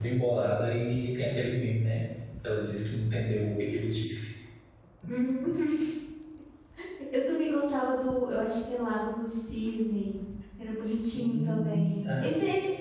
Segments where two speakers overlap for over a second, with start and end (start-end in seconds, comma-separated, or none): 10.9-12.3